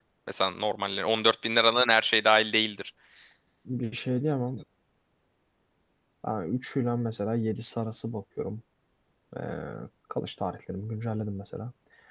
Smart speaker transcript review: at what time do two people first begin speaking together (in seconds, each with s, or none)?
none